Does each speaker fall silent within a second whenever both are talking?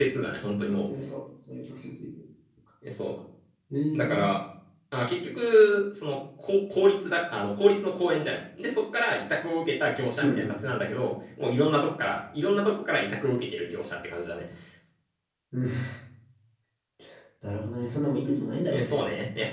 Yes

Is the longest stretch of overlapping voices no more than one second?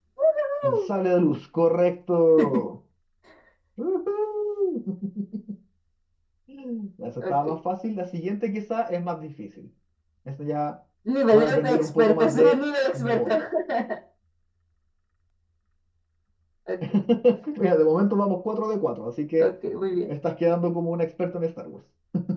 No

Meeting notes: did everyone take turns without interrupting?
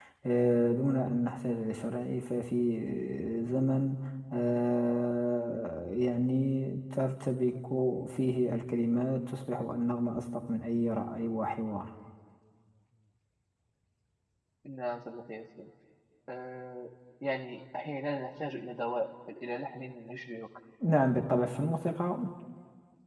Yes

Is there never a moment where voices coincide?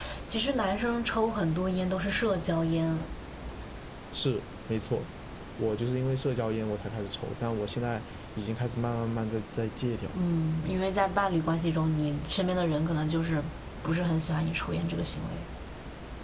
Yes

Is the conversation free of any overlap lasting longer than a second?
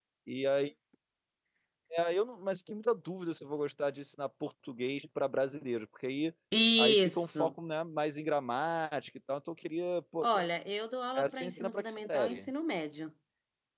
No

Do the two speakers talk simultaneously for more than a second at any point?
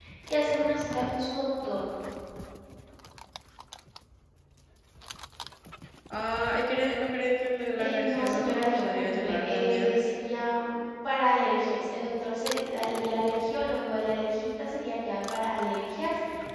Yes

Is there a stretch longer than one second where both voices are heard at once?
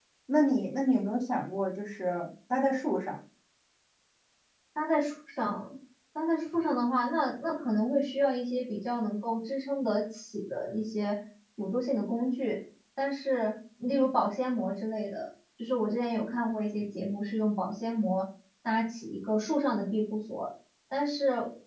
No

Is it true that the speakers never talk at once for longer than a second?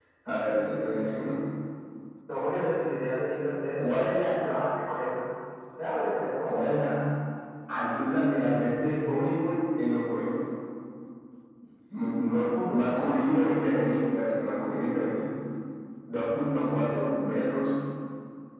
No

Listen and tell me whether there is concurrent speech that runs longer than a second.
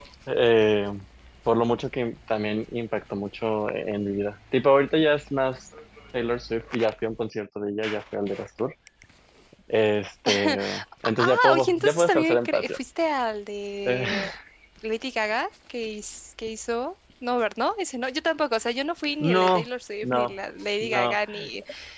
Yes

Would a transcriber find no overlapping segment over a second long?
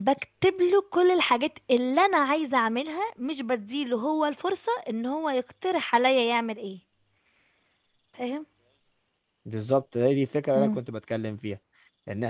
Yes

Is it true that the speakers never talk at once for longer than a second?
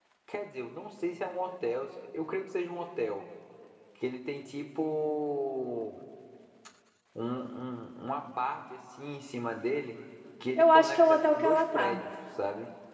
No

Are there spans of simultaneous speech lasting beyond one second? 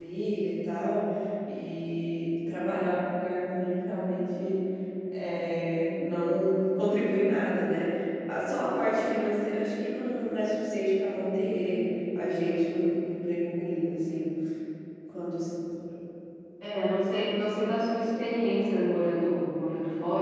No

